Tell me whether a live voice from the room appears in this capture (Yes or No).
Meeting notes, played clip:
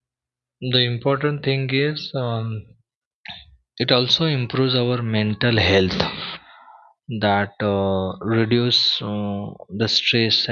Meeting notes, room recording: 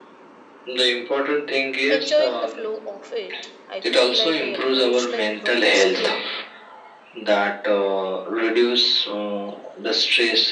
Yes